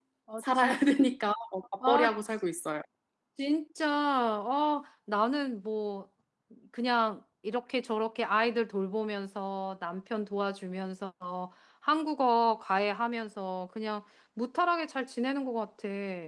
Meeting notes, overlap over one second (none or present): none